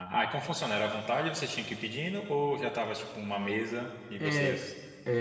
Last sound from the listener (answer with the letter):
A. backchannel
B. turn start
B